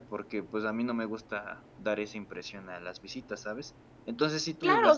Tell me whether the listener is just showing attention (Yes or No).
No